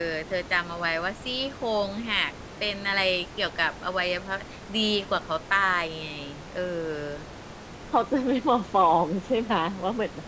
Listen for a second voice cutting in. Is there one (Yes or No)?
No